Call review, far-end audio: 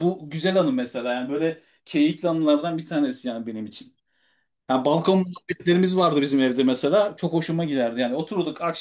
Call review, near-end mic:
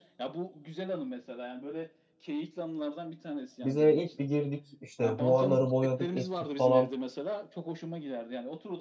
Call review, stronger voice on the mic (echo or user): user